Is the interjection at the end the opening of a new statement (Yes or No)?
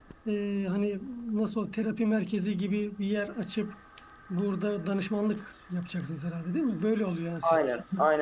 Yes